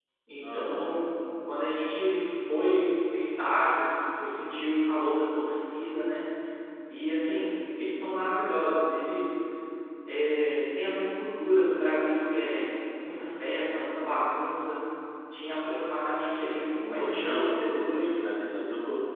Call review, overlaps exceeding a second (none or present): present